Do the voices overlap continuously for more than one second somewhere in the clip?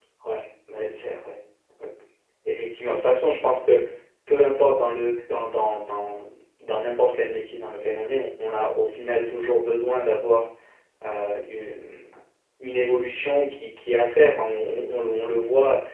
No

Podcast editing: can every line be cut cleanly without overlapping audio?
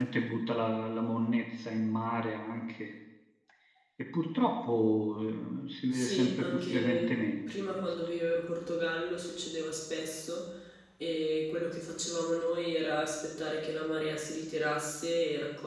No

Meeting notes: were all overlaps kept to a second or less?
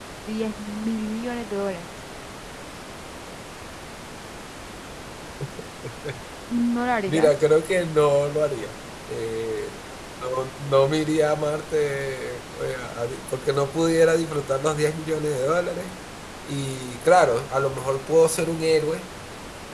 Yes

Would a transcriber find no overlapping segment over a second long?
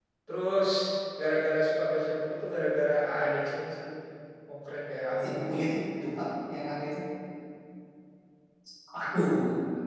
Yes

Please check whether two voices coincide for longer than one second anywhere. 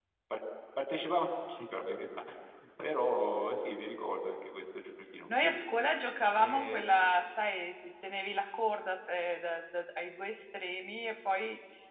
No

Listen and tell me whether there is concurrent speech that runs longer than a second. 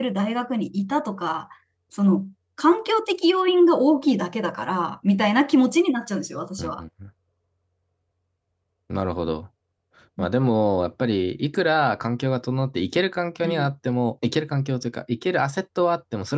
No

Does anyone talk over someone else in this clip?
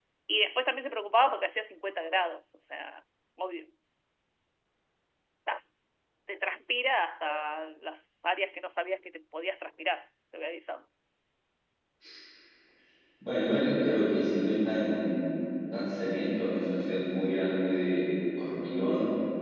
No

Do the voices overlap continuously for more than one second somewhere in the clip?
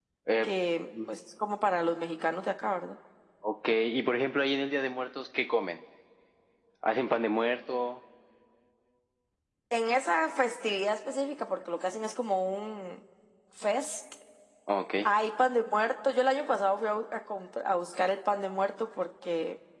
No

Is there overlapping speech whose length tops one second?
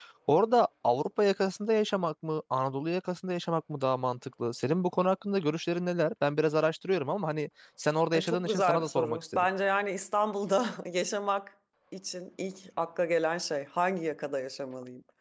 Yes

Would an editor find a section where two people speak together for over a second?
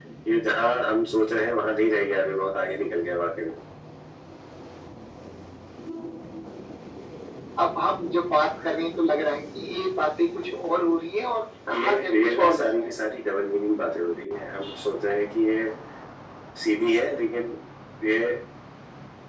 Yes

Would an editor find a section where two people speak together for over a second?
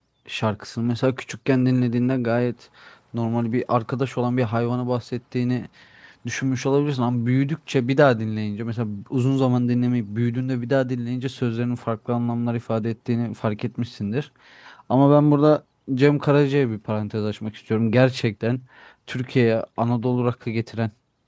No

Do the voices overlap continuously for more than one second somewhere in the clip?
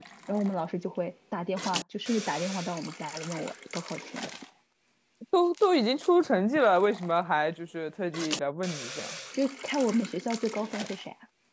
No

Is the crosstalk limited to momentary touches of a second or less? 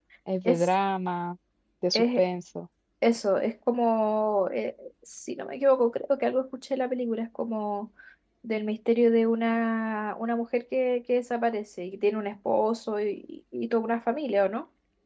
Yes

